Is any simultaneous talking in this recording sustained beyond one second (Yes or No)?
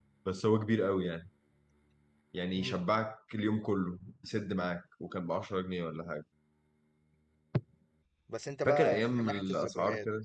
Yes